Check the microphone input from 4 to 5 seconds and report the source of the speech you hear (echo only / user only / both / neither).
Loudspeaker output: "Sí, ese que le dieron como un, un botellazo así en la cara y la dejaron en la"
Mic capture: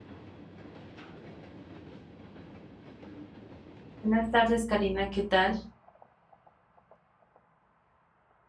user only